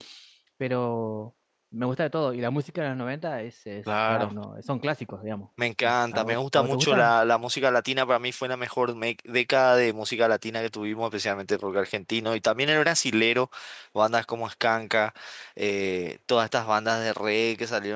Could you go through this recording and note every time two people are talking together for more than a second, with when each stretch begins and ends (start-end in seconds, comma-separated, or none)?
5.8-7.1